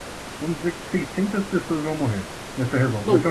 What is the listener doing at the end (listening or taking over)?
taking over